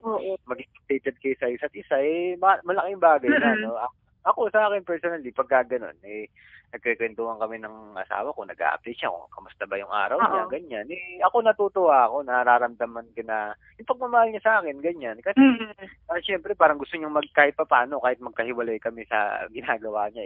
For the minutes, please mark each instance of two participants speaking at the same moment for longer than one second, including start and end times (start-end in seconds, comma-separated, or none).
none